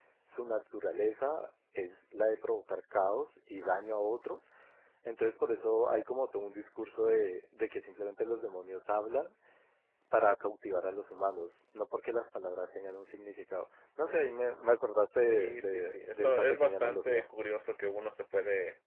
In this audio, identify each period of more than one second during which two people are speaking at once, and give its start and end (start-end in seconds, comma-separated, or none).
15.2-17.2